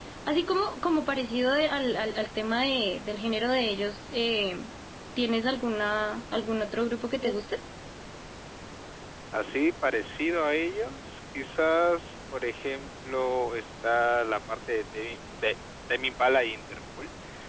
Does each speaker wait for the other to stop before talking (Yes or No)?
Yes